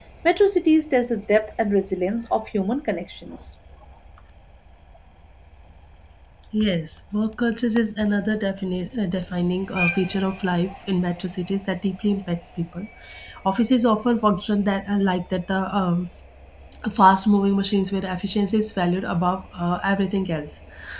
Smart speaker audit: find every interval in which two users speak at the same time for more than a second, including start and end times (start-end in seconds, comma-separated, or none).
none